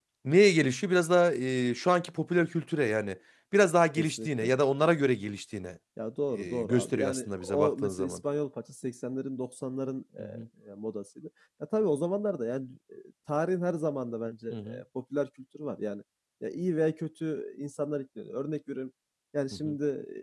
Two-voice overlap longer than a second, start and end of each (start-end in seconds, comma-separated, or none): 6.4-8.2